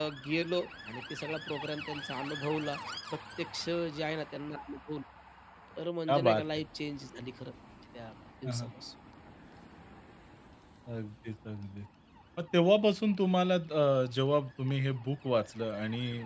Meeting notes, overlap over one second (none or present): none